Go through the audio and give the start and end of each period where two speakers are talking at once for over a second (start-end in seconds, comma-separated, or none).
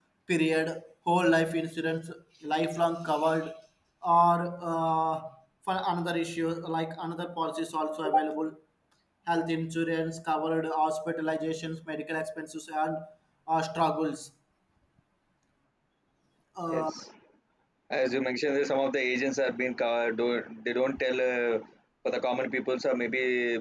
none